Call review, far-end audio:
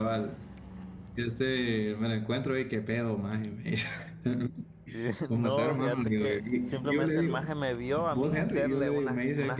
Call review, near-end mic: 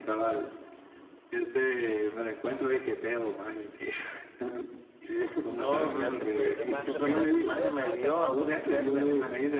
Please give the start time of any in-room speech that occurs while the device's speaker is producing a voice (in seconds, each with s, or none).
6.4 s